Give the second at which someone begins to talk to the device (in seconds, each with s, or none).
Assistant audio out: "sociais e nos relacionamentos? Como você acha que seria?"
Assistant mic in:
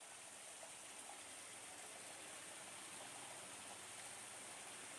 none